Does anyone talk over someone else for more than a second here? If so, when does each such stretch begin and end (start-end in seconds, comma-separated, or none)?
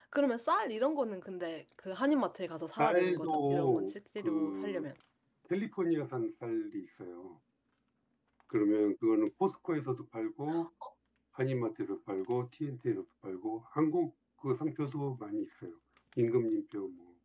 2.8-4.8